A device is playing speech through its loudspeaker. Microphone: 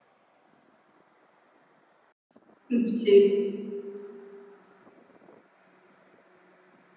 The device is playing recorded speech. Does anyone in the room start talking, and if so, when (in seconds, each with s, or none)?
2.7 s